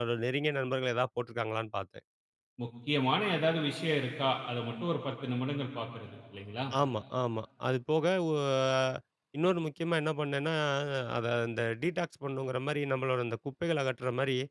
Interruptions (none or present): none